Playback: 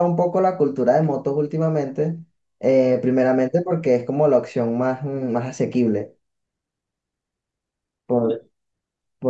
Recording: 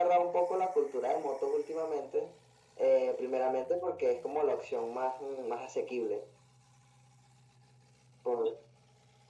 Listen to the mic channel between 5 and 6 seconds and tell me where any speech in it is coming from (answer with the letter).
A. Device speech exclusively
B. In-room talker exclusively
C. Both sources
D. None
A